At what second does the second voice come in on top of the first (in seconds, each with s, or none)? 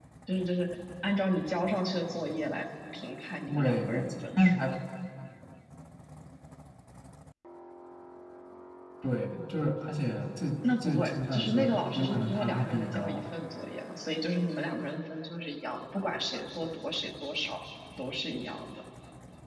3.5 s